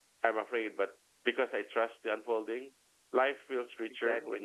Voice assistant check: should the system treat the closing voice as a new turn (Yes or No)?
No